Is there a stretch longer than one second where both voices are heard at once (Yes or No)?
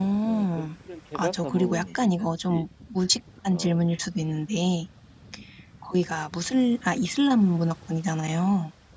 Yes